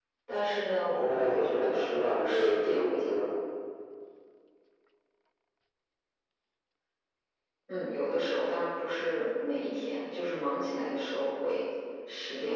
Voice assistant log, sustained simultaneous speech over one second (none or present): present